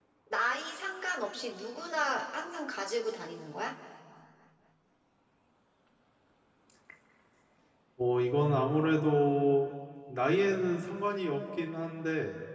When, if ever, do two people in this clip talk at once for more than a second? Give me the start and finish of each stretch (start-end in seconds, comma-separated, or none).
none